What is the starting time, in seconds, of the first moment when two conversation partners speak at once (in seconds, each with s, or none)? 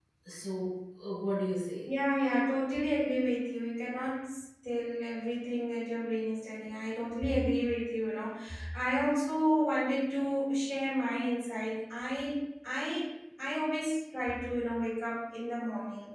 none